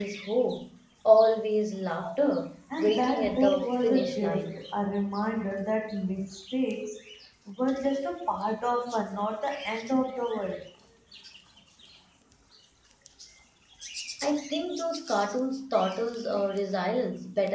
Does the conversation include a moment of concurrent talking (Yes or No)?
Yes